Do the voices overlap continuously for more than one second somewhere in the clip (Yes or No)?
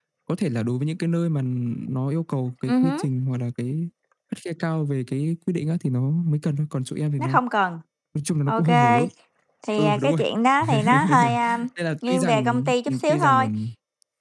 Yes